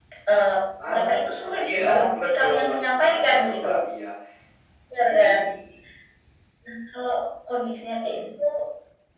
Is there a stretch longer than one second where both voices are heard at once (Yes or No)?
Yes